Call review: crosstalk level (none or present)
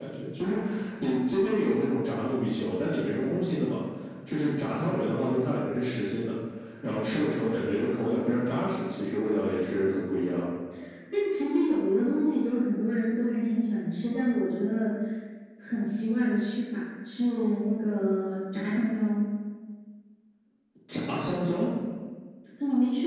none